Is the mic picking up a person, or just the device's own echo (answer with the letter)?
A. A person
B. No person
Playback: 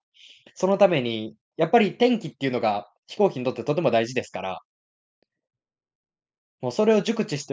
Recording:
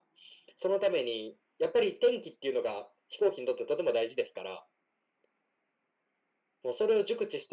B